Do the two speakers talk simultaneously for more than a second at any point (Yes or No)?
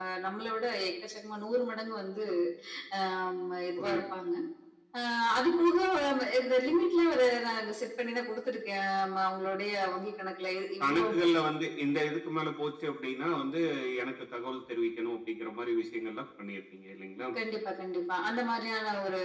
No